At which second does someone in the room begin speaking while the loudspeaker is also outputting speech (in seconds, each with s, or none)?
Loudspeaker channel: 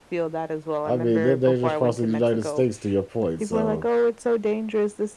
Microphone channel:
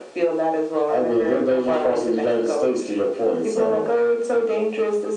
none